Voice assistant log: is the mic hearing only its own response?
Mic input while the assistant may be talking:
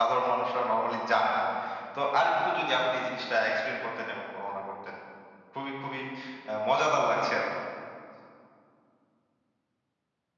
No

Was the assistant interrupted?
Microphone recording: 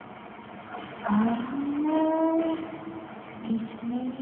No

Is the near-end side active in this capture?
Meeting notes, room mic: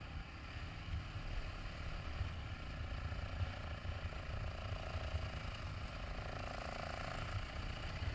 No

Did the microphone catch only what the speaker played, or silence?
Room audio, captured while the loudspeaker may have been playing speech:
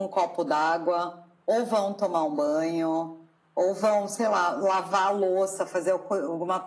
Yes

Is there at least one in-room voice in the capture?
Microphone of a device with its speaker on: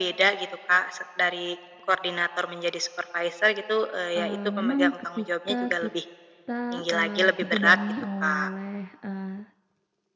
Yes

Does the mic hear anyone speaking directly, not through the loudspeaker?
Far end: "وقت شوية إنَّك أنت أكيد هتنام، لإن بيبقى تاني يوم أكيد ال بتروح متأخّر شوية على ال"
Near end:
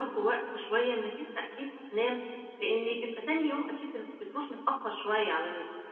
No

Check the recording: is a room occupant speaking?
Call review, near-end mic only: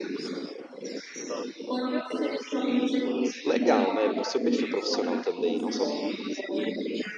Yes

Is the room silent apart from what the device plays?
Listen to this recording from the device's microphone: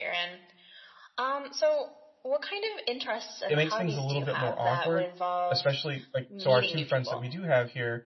No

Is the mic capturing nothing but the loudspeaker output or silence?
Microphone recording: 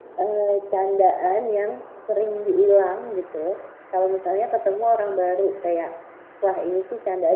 No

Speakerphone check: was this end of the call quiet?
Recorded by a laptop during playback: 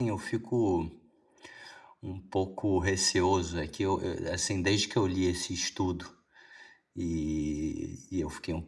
No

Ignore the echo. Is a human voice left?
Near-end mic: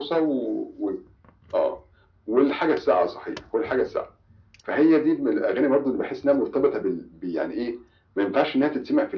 No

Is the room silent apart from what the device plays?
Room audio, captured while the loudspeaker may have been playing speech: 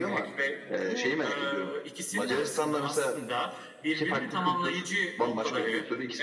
No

